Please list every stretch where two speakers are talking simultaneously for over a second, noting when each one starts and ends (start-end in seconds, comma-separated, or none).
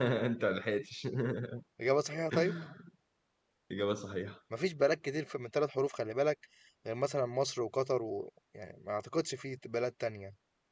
none